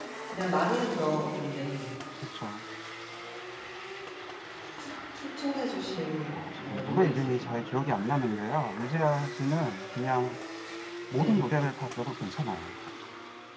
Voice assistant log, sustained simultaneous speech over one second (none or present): present